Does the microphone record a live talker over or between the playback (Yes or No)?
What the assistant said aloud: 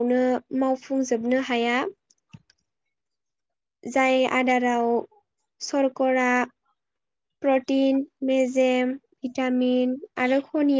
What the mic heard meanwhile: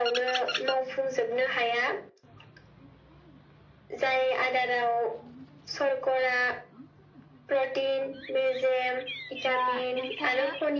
Yes